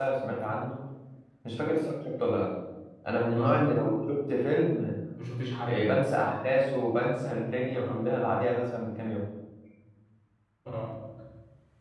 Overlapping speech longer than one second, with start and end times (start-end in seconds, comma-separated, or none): none